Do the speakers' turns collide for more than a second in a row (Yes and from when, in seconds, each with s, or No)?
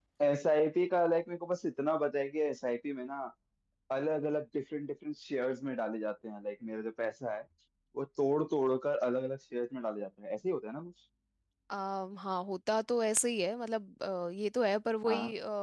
No